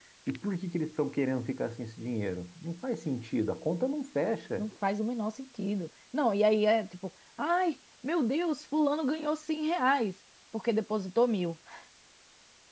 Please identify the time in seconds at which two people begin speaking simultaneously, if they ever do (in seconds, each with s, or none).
none